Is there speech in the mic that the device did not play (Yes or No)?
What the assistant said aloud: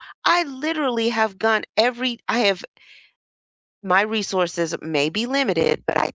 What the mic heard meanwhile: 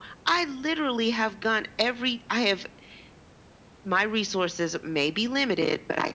No